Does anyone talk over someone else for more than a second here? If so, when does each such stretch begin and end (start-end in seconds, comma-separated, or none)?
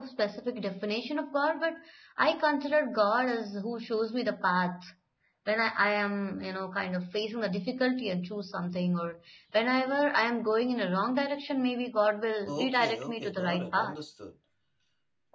12.5-14.0